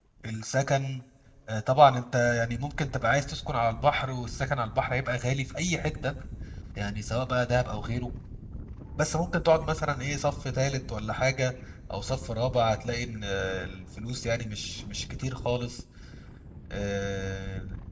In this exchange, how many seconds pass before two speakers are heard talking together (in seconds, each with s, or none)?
none